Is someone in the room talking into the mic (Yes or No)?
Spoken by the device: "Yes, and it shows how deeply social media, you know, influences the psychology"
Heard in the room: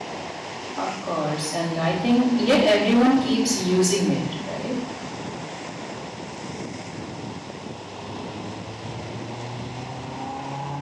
Yes